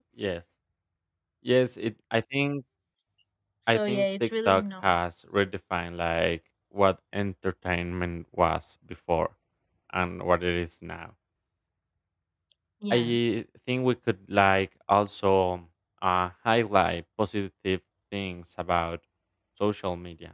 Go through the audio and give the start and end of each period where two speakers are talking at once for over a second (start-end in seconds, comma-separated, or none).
3.7-4.9